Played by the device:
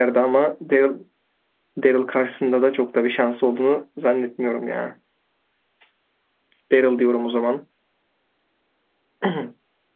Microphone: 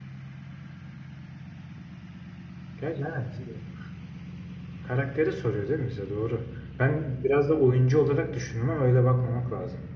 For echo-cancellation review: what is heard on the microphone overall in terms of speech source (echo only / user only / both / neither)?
user only